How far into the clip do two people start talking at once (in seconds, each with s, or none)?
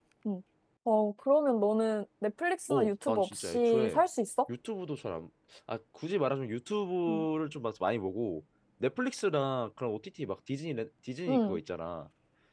2.7 s